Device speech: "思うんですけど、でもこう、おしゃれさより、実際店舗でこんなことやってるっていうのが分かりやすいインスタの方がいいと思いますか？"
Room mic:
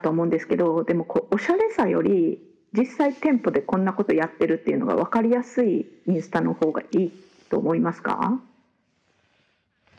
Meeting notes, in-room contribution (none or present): none